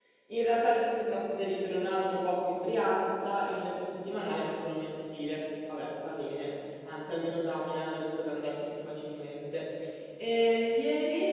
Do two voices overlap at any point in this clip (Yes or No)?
No